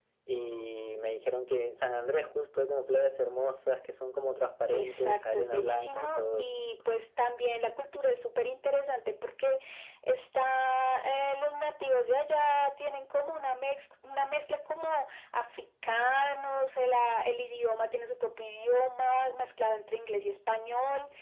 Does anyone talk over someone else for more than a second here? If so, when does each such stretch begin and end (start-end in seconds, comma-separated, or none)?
4.7-6.7